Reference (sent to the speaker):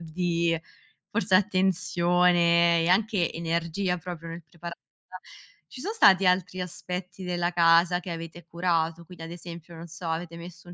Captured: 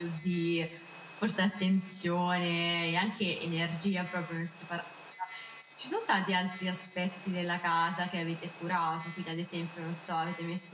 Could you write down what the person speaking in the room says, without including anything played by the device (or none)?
none